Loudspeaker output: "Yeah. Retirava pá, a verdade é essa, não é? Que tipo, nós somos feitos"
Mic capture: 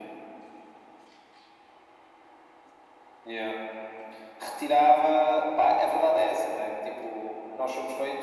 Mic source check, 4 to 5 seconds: echo only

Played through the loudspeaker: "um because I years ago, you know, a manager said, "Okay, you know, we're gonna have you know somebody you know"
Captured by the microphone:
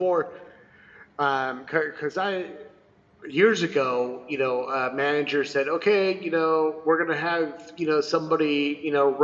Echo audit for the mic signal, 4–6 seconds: echo only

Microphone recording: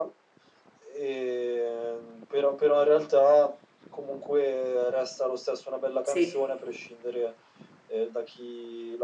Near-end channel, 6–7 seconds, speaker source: both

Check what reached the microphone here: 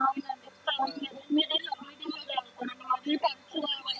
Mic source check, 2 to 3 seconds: echo only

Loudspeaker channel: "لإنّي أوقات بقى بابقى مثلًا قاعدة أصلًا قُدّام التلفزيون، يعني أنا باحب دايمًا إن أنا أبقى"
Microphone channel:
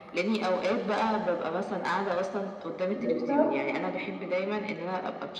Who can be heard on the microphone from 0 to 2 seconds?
echo only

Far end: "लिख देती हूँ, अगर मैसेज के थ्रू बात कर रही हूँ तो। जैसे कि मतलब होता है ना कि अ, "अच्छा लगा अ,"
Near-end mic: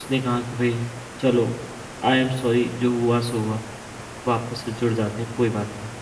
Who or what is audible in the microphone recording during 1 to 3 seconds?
user only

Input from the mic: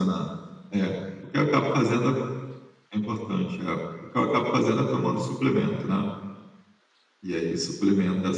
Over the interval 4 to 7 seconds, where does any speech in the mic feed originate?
echo only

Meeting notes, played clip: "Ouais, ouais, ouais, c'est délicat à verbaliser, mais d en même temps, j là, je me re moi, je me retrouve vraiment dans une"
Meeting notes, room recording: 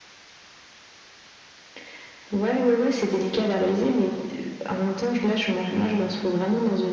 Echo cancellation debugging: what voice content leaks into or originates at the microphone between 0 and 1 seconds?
neither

